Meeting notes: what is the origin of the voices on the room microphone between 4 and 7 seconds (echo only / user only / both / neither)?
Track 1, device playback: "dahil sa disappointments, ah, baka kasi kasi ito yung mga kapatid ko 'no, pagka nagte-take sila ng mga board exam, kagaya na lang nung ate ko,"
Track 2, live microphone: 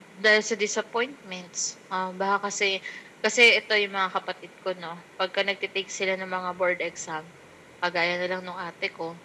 echo only